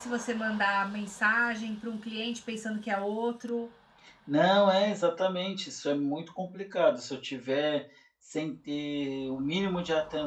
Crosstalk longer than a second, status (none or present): none